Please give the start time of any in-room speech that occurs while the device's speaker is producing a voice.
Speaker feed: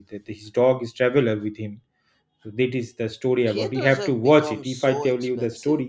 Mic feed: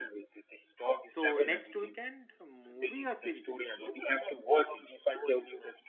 1 s

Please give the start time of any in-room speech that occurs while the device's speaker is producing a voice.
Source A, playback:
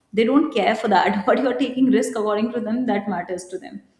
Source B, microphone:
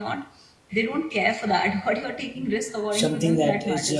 3 s

